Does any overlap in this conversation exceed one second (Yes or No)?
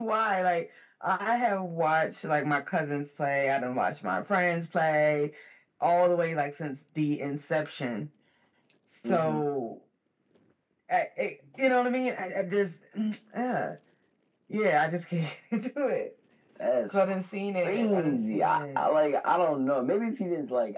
Yes